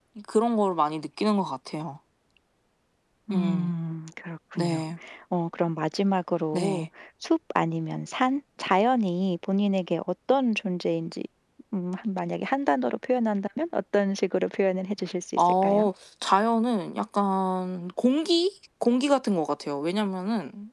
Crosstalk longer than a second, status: none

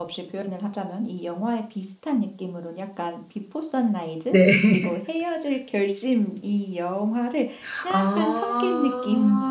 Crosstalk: present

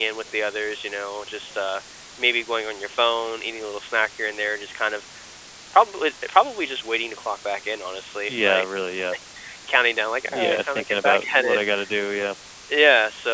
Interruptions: present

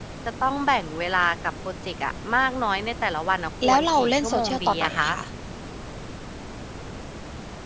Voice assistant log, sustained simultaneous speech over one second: present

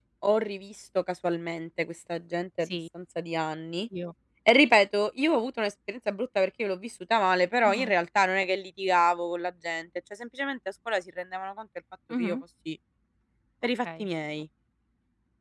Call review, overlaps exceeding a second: none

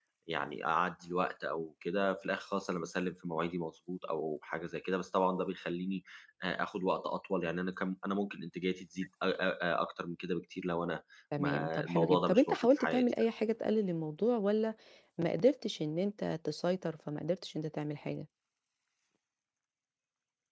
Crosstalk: present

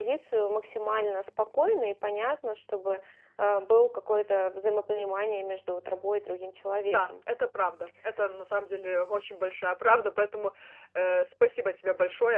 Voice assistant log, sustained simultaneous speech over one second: none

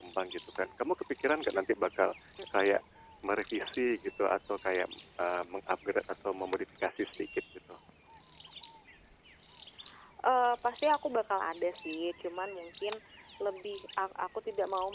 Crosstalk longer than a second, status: none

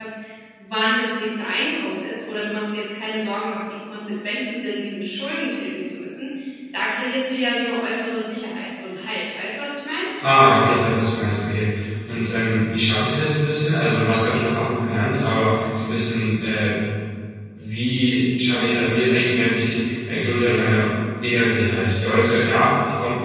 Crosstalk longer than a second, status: none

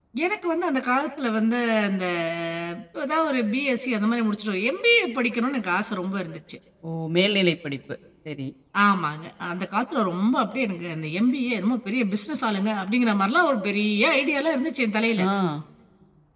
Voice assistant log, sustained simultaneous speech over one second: none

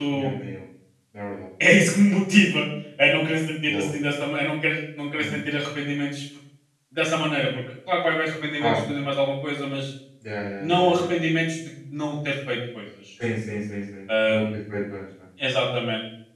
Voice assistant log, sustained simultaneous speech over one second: none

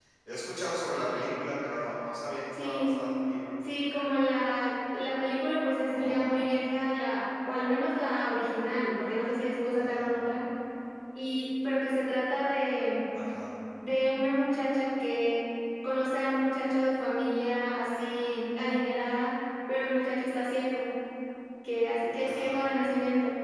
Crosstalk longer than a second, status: none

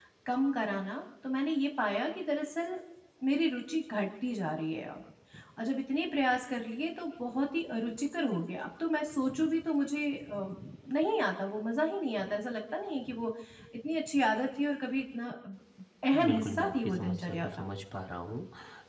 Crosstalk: present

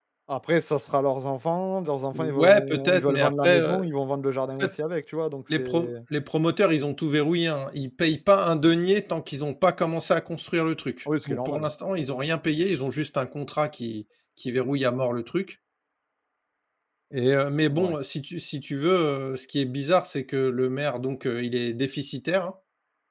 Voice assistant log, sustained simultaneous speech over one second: present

